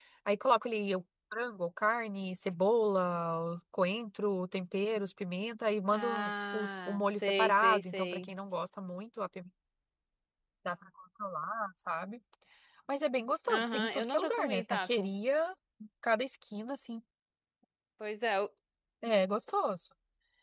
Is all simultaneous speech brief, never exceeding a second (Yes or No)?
No